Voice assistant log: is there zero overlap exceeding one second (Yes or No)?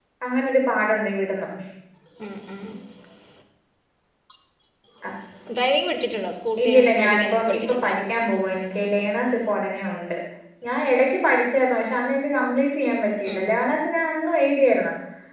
No